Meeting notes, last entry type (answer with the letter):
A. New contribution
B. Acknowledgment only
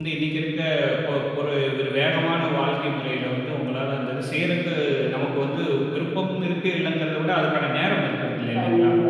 A